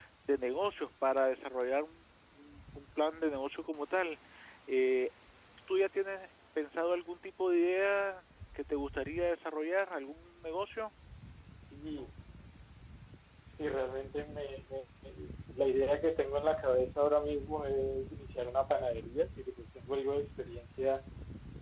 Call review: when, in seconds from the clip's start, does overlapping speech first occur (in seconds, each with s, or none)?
none